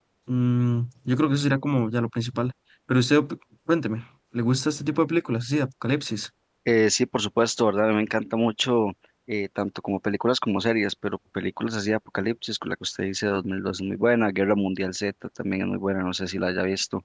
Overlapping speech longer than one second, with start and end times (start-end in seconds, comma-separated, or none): none